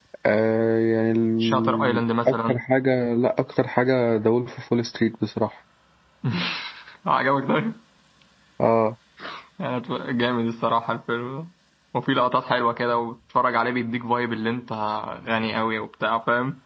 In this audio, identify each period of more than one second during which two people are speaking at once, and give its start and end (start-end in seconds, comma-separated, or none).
1.4-2.6